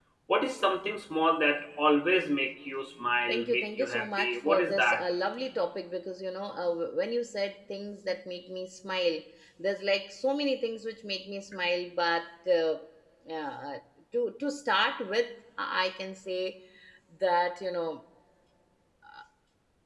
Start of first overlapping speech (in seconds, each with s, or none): 3.3 s